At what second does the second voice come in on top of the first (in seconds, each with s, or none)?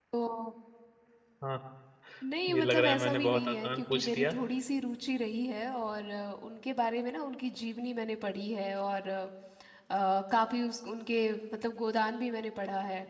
2.5 s